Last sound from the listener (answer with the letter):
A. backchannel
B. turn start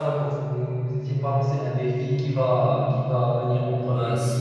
B